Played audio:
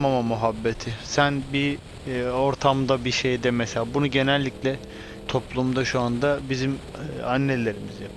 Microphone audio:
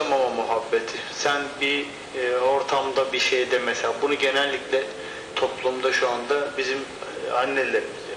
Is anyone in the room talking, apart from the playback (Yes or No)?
No